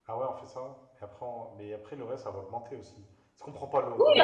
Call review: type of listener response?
taking over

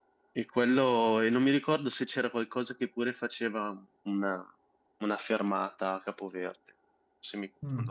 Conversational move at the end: taking over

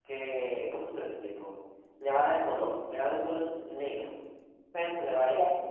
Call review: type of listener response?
listening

